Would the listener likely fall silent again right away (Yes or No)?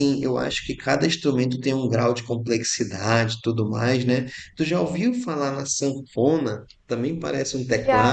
Yes